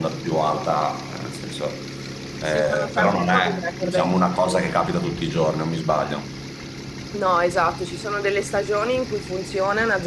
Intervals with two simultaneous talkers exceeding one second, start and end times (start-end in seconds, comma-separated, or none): 2.5-4.1